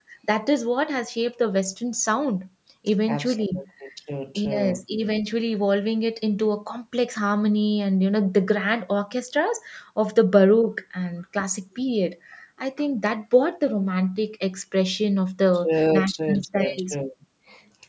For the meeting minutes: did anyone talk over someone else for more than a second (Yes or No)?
Yes